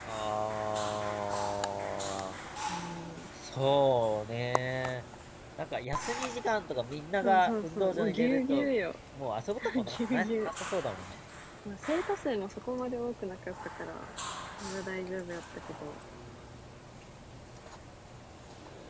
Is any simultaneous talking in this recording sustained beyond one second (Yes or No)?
Yes